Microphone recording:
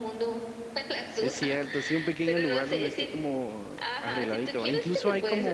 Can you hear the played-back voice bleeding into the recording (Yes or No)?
Yes